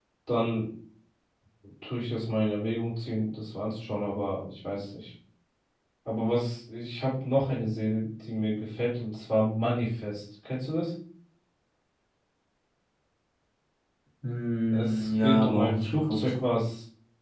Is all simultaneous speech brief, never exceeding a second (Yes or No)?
No